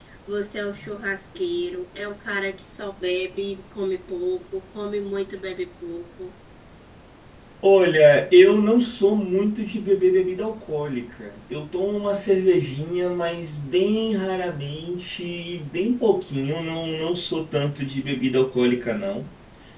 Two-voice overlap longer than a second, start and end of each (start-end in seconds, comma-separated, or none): none